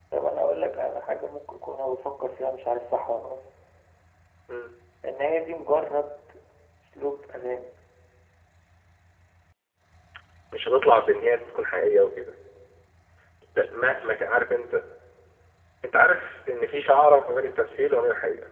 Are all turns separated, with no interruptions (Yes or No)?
Yes